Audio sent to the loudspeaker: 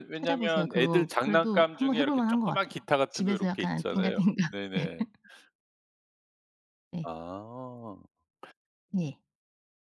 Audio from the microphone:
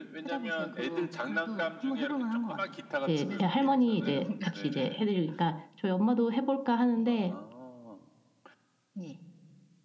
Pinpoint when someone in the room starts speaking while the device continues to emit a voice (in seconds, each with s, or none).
3.1 s